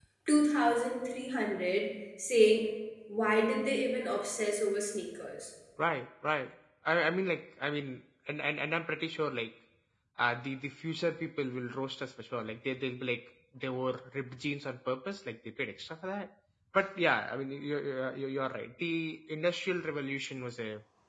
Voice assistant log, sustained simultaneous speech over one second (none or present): none